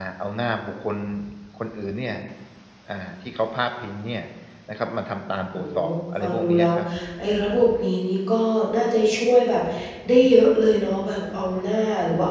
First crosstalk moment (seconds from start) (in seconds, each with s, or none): 5.5 s